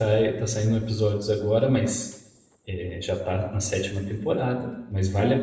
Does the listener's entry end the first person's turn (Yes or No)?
No